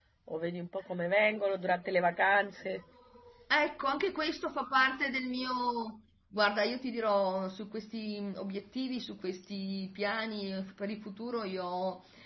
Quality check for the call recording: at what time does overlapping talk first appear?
none

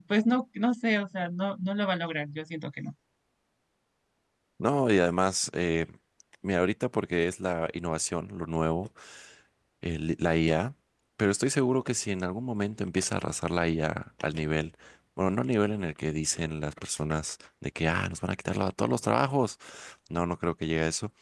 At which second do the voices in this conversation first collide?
none

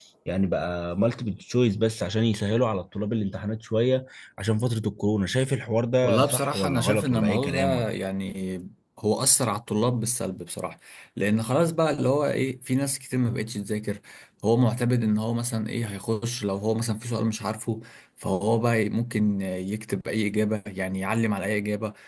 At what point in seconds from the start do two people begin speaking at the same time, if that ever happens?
6.0 s

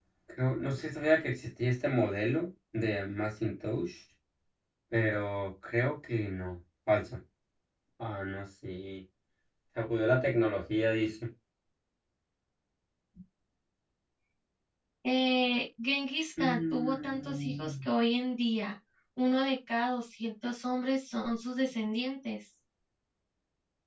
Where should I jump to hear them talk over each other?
16.4 s

